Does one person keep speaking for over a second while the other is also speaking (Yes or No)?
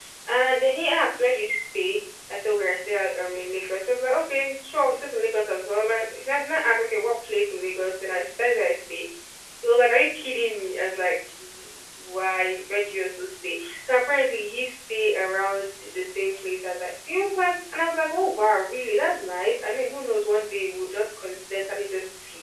No